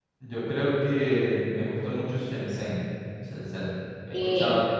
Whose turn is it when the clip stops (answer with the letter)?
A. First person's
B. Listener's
A